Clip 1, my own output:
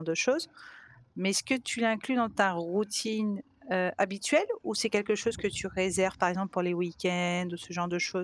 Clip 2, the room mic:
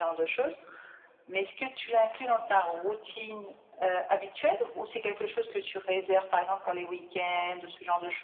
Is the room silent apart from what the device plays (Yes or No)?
Yes